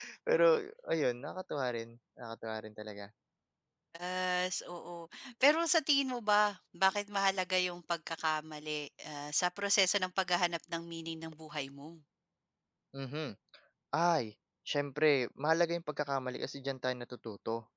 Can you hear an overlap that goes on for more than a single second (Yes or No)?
No